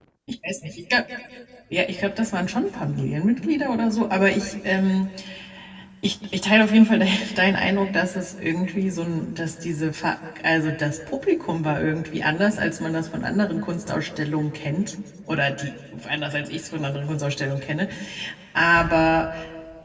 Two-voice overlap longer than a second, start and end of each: none

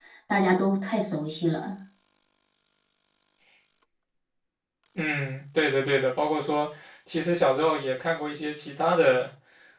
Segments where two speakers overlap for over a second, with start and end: none

